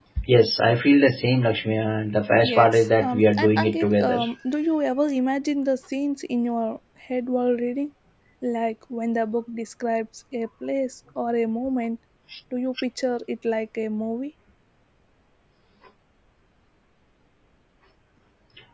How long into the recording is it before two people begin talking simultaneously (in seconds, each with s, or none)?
2.4 s